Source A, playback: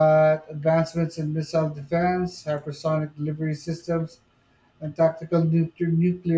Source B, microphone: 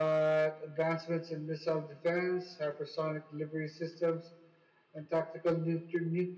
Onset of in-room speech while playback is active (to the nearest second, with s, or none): none